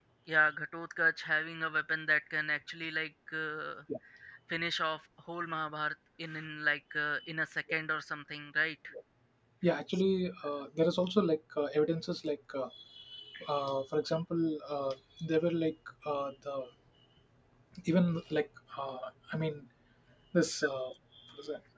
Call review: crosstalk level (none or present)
none